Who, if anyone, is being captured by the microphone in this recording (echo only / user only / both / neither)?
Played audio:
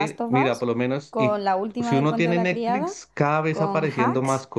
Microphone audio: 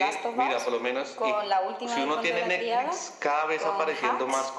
echo only